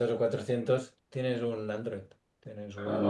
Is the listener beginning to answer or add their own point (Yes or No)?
Yes